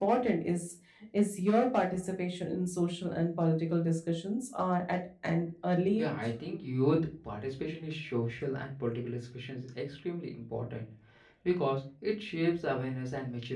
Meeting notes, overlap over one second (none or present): none